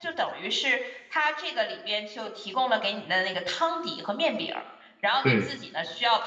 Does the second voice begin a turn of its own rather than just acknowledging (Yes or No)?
No